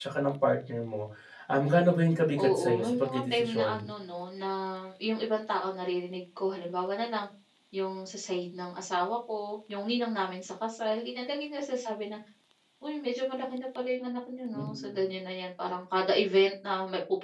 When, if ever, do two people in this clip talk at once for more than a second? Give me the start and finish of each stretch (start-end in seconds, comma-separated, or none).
2.4-3.9